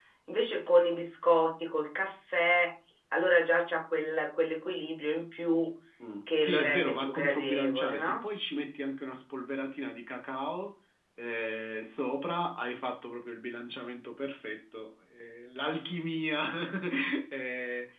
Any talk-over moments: Yes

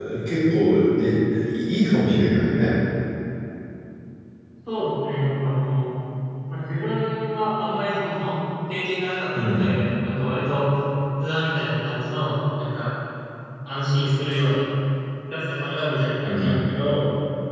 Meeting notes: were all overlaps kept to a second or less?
Yes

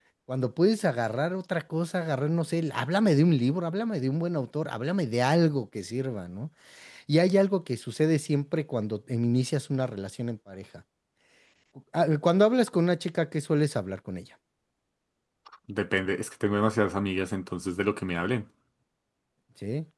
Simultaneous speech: No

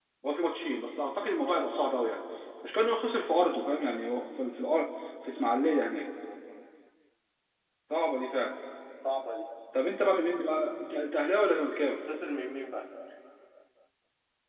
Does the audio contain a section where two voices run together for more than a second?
No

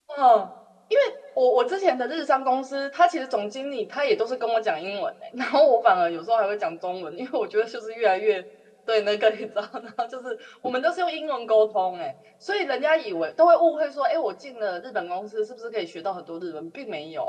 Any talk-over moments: No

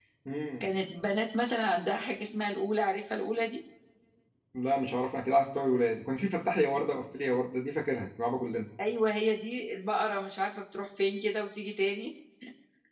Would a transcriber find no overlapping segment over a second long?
Yes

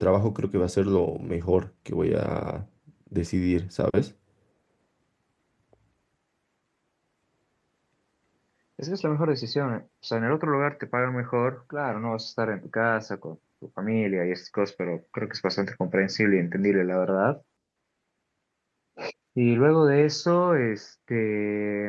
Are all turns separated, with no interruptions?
Yes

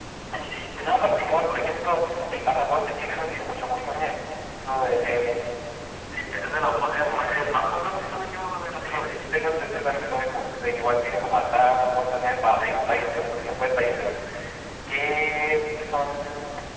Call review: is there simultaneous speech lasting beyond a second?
No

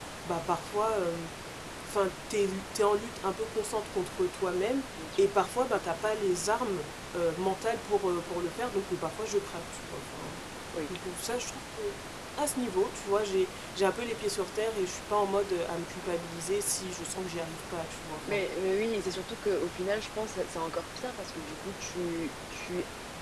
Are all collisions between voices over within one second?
Yes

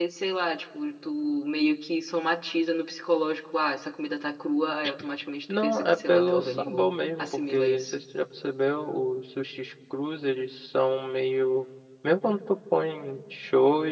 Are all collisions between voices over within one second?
No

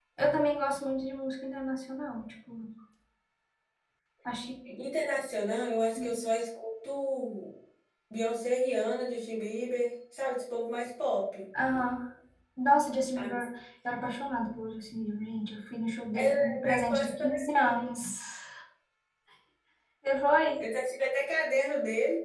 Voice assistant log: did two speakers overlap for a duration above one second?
Yes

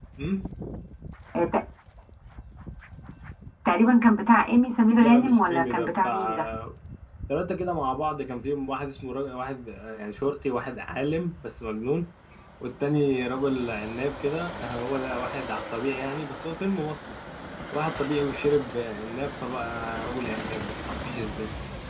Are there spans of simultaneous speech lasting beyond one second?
Yes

